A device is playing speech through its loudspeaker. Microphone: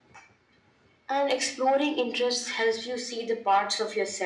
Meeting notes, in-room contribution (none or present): none